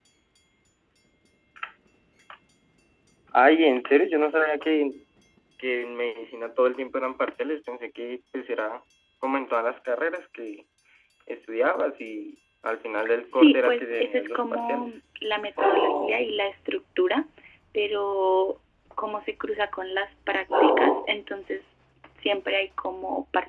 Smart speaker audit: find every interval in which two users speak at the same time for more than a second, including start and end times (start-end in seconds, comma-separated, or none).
13.3-14.9